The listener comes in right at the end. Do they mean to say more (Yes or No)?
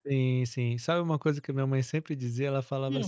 No